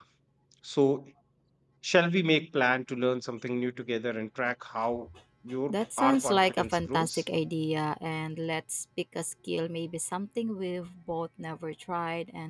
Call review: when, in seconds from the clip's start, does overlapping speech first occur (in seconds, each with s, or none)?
5.7 s